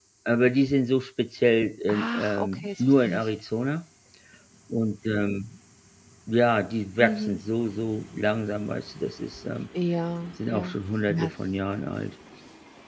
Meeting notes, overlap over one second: present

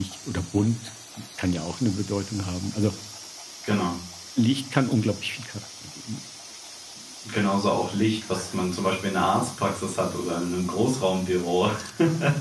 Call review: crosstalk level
none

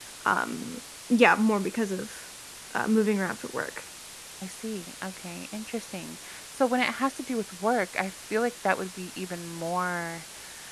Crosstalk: none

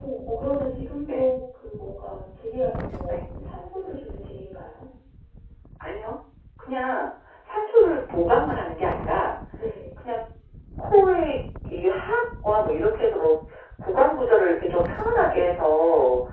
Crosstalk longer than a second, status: none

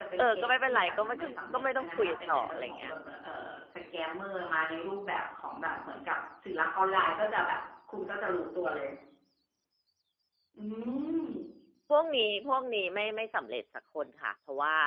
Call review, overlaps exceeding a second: present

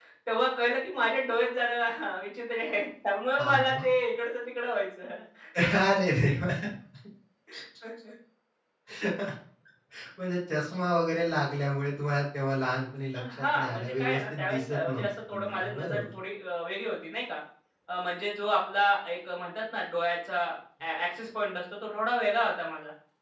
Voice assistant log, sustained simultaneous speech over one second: present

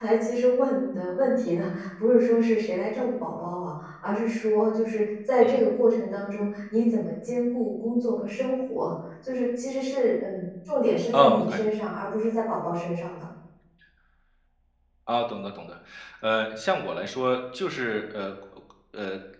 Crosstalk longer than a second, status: none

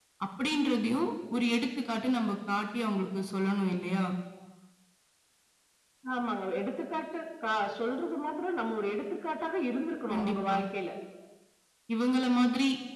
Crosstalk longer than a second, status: none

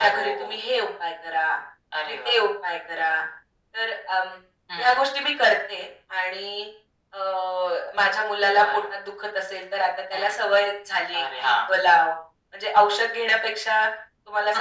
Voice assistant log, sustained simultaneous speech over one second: none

